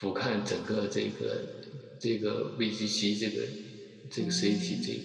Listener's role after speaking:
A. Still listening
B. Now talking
B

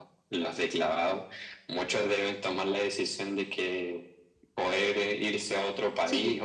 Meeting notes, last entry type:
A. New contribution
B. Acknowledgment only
B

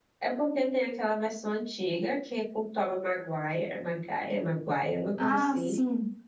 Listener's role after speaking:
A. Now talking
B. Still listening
A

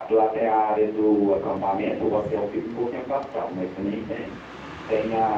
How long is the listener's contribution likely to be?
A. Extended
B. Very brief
B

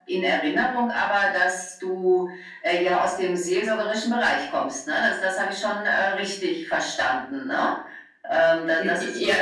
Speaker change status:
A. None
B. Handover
B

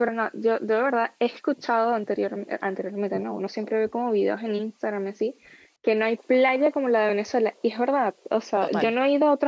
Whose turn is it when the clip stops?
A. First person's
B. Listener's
A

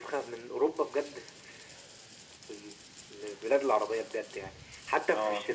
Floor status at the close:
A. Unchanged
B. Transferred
A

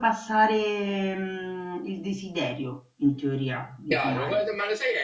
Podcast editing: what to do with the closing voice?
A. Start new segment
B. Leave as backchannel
A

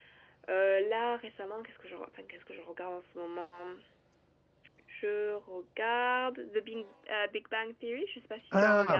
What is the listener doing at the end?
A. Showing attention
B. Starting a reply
B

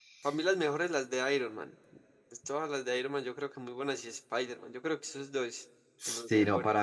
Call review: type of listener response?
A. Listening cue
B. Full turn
B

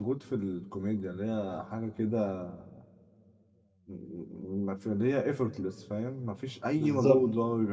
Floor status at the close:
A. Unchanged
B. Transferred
A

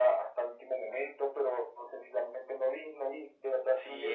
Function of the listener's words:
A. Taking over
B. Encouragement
A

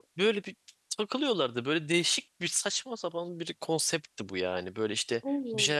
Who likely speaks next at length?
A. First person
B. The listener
A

